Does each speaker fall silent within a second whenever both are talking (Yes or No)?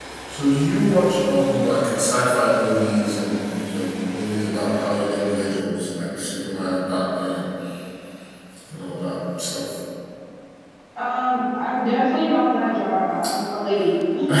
Yes